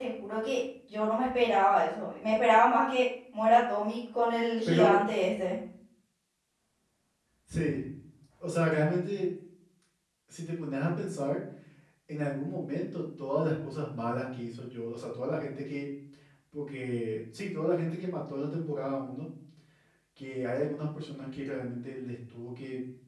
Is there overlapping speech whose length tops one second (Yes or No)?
No